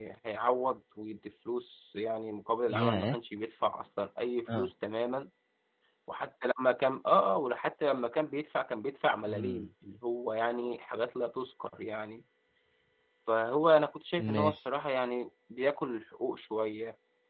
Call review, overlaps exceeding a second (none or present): none